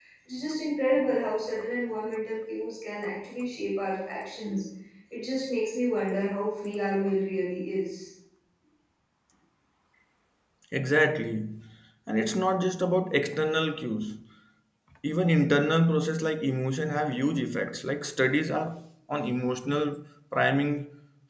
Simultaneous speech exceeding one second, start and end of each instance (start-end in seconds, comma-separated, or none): none